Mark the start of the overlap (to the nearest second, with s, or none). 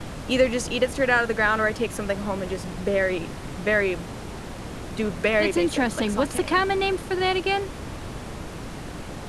5 s